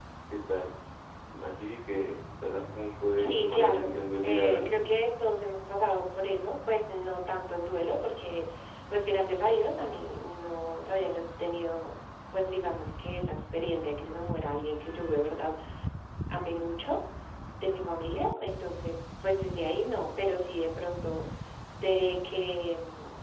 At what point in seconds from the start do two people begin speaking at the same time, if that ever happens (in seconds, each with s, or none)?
3.2 s